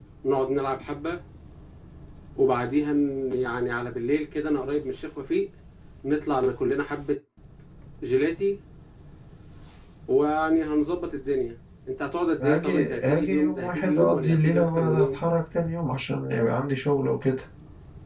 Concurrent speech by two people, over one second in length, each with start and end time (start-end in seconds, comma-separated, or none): 12.4-15.2